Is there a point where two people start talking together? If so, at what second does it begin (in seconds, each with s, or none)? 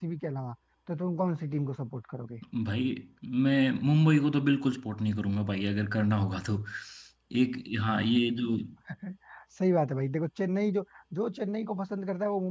none